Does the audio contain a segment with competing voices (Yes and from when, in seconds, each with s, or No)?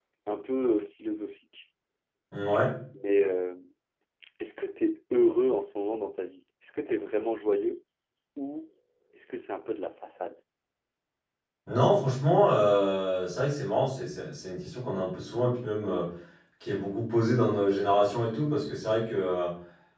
No